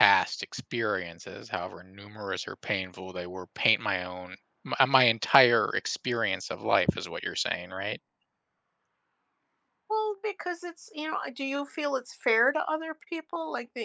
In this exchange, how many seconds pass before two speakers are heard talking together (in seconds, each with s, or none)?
none